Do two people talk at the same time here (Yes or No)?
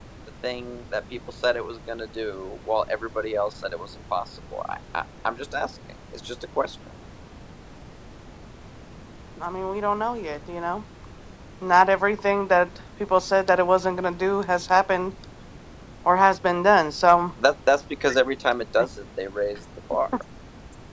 No